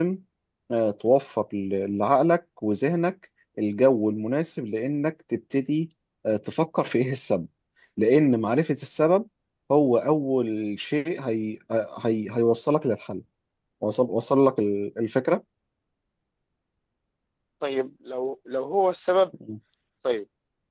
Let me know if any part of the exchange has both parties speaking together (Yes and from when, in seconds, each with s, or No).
No